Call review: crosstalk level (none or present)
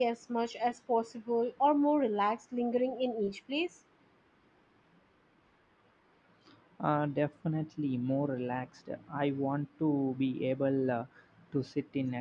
none